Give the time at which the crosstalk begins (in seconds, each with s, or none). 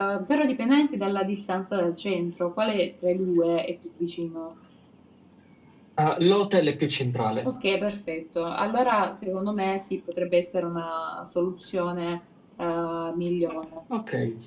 none